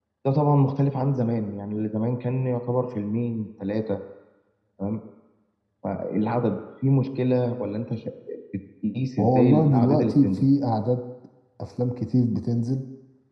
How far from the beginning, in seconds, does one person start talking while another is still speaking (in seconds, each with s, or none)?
9.2 s